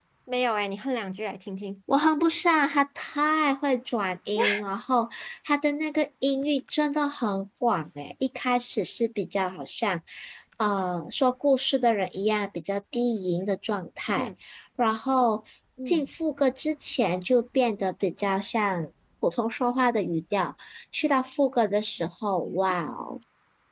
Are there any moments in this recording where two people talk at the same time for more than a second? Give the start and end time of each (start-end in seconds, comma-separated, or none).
none